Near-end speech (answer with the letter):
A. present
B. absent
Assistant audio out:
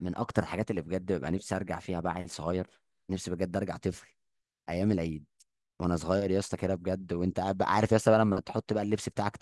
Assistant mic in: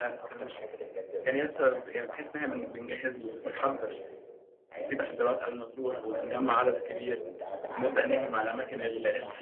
A